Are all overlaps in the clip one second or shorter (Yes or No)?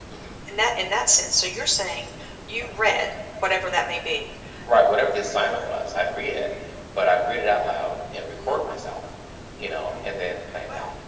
Yes